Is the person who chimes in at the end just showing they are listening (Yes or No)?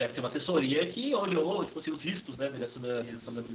No